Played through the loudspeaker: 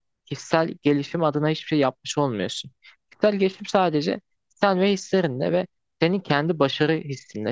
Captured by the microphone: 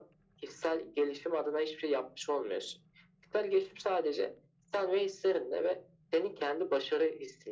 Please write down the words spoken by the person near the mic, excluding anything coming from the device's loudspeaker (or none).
none